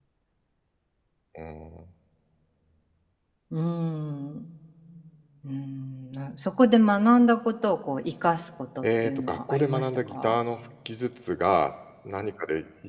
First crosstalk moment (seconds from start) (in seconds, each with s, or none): 8.8 s